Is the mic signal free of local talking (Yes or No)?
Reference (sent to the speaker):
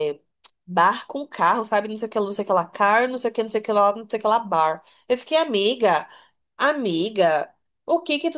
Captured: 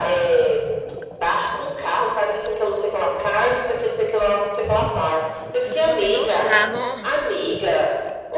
No